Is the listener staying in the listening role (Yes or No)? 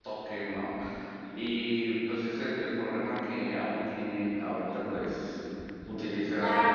No